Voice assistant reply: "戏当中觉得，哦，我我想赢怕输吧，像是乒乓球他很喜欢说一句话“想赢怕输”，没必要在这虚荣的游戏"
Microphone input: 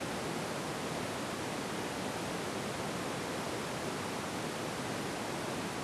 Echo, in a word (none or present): none